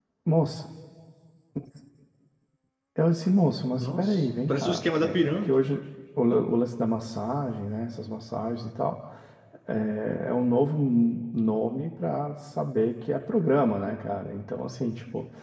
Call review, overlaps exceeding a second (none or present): present